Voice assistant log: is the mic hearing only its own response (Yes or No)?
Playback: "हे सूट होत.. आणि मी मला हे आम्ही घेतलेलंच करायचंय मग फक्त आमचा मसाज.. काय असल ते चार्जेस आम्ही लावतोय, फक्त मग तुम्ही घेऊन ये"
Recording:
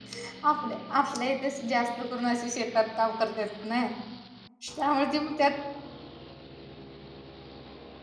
No